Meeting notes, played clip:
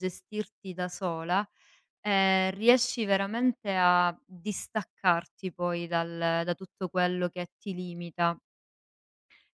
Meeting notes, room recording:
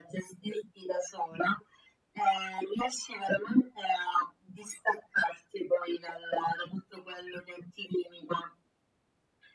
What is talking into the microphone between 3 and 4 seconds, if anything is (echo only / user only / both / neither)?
echo only